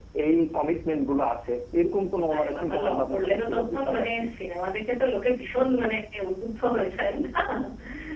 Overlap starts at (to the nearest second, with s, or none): 2 s